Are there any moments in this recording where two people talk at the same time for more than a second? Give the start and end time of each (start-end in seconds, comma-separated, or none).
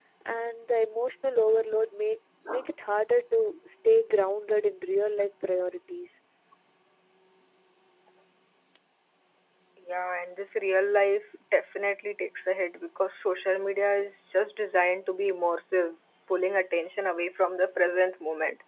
none